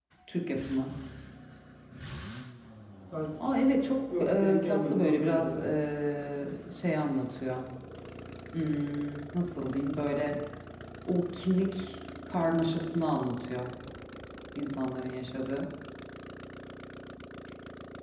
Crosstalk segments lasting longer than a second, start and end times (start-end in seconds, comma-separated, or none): 4.2-5.7